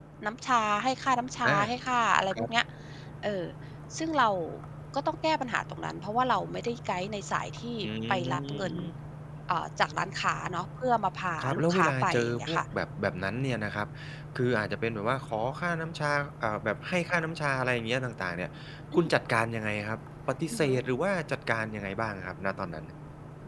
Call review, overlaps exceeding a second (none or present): present